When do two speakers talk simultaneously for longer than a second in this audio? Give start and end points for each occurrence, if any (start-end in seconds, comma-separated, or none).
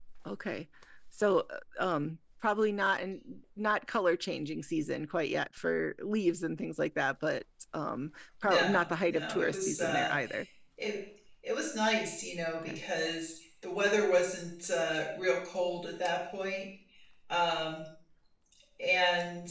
8.4-10.1